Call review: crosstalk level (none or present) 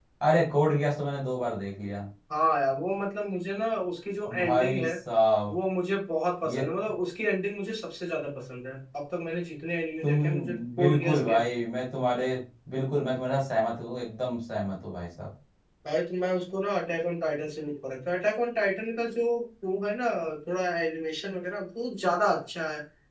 present